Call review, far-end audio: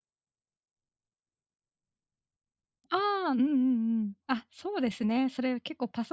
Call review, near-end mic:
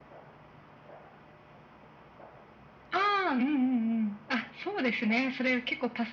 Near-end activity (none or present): none